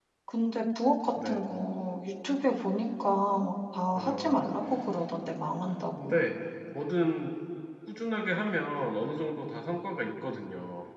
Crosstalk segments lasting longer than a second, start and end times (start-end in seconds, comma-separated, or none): none